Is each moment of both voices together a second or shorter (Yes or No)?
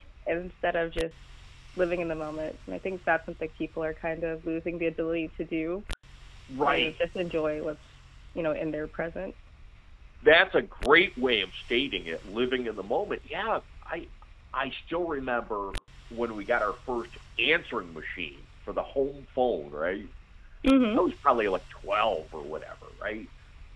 Yes